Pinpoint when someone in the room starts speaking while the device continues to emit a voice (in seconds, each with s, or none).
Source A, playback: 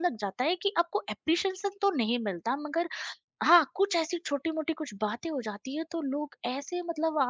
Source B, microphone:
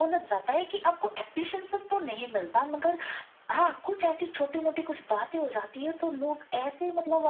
none